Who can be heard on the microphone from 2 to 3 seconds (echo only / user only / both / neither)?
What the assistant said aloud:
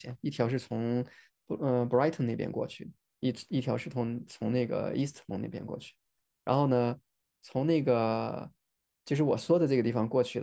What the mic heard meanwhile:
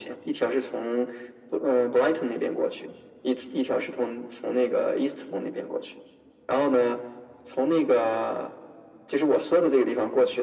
echo only